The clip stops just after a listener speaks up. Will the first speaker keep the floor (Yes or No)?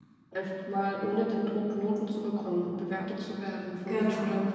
Yes